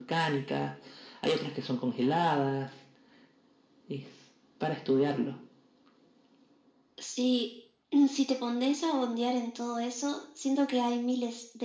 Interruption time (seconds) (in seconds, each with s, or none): none